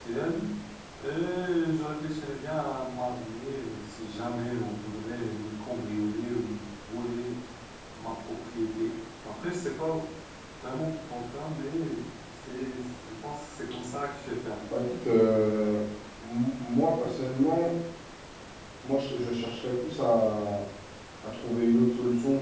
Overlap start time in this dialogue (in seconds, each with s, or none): none